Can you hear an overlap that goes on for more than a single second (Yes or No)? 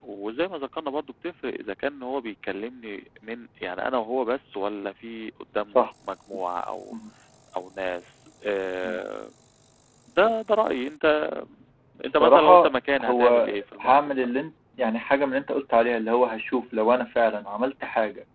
Yes